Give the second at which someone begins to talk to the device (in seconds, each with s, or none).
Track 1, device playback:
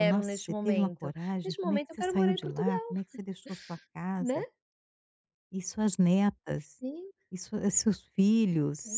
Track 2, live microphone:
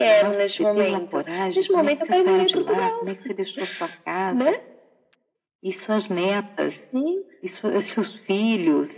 none